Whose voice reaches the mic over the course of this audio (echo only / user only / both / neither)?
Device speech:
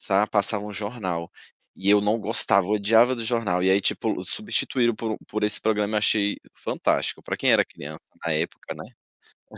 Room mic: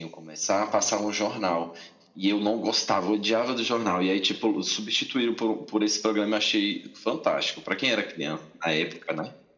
echo only